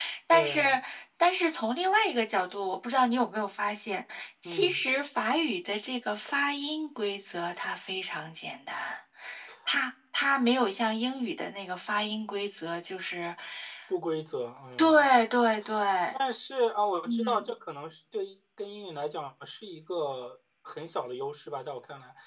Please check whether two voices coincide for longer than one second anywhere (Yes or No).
No